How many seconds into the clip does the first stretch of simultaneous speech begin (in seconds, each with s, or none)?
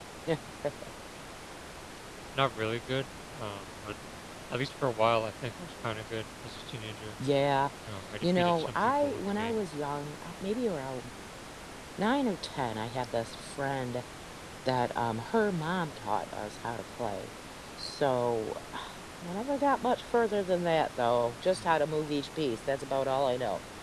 8.2 s